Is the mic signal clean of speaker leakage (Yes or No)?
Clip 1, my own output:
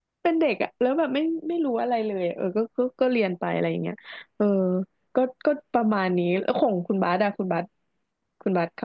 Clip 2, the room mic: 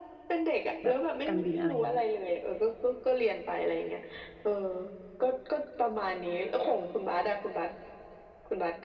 No